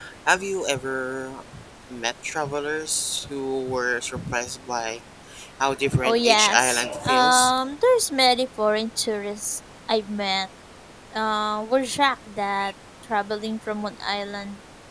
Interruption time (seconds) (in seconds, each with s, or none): 6.0 s